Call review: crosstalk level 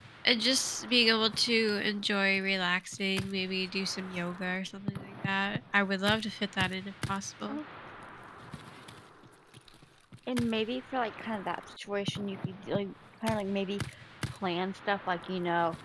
none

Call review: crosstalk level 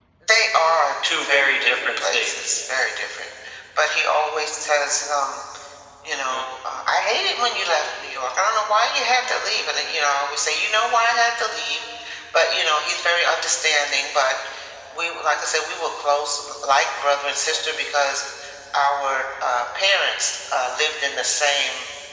present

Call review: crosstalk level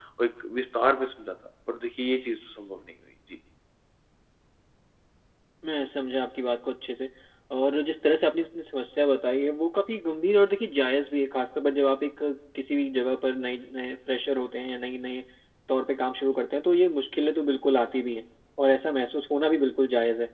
none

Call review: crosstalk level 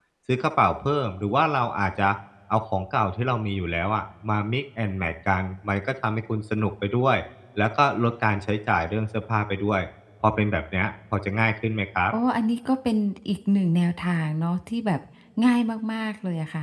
none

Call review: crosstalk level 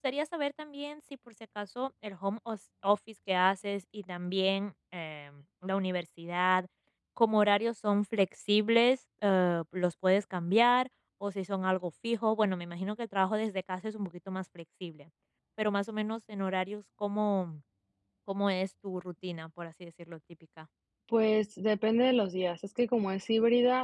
none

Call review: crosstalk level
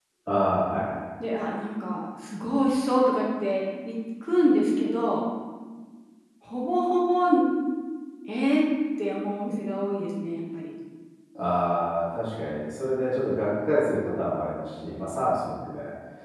none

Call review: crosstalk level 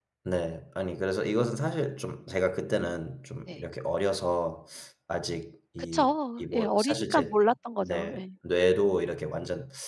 present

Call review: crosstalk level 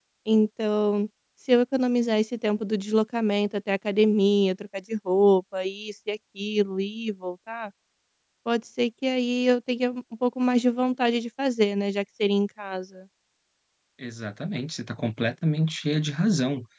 none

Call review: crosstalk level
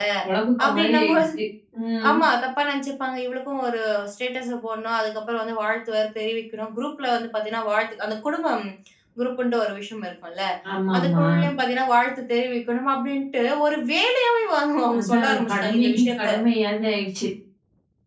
present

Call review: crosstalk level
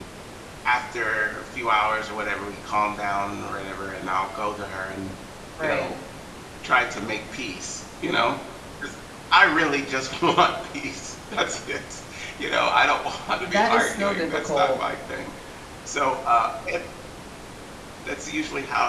present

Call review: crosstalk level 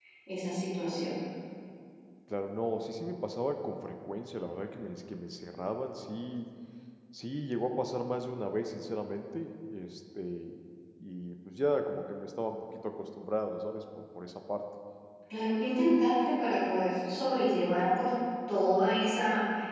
none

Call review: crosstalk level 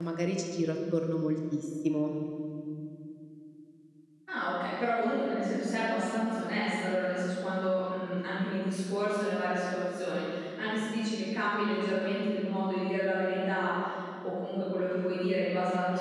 none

